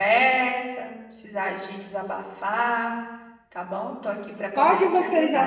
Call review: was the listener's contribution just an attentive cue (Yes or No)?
No